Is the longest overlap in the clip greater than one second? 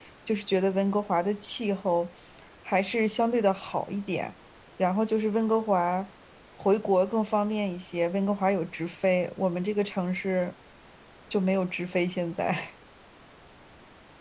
No

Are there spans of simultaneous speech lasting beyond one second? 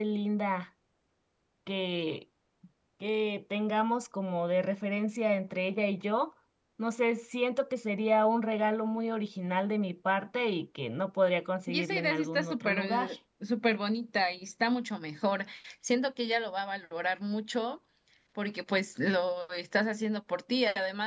Yes, from 11.7 s

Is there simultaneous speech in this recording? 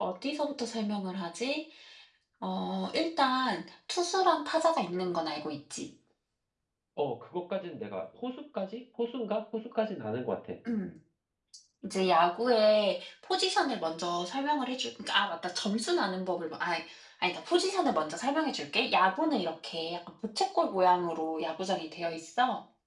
No

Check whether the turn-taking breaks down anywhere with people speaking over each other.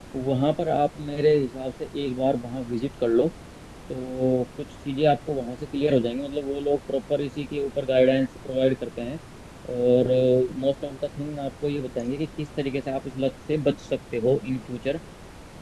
No

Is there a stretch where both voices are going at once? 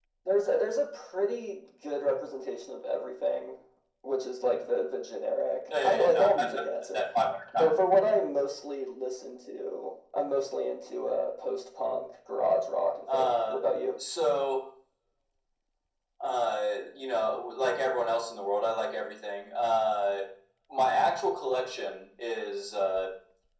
Yes, from 5.8 s

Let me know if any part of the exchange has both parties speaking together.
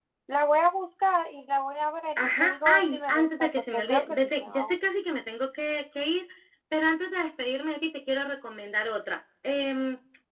Yes, from 2.2 s

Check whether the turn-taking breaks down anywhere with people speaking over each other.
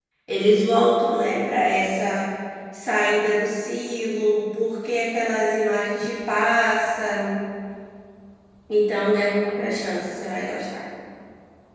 No

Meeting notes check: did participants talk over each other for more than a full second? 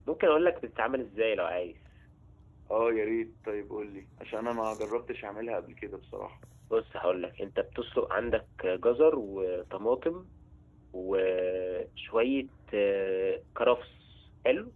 No

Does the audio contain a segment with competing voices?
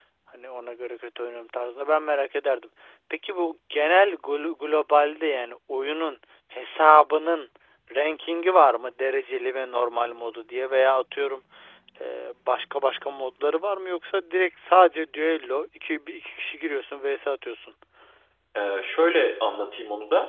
No

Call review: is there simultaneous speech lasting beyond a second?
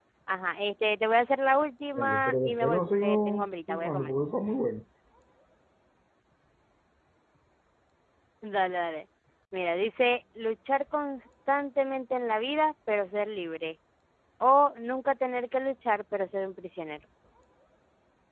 Yes, from 1.9 s

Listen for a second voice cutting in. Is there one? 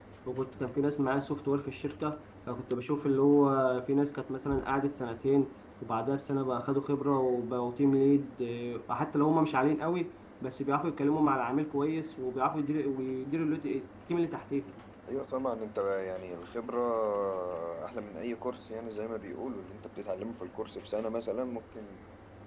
No

